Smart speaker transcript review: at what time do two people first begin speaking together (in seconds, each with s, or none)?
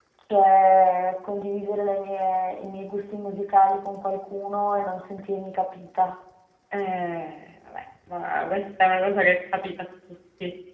none